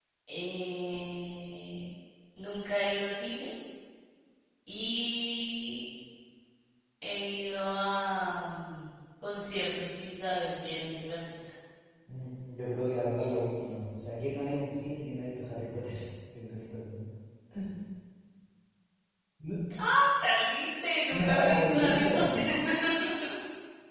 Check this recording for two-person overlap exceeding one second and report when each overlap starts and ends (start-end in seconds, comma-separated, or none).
21.1-22.4